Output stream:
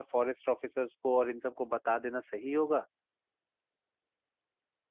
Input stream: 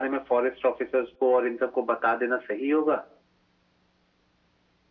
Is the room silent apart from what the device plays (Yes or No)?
Yes